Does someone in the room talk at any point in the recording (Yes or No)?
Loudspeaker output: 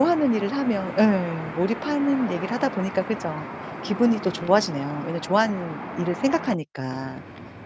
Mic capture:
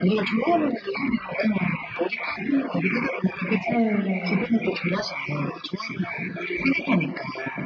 Yes